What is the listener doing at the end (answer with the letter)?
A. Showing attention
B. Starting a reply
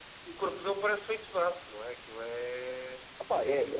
B